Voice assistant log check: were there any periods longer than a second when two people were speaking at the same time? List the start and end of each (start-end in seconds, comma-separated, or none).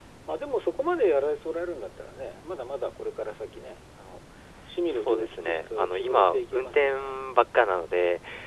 4.9-6.9